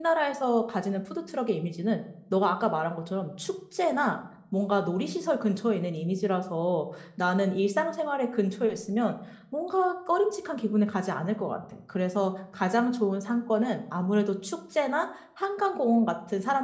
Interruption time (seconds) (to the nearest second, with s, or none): none